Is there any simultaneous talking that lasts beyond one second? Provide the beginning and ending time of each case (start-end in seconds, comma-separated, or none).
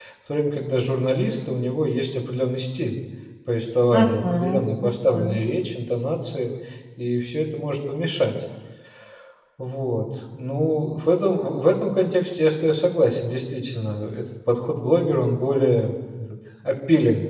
3.9-5.4